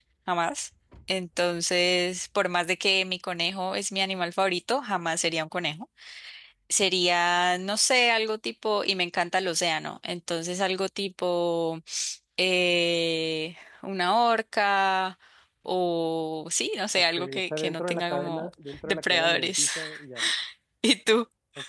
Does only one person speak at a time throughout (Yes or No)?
No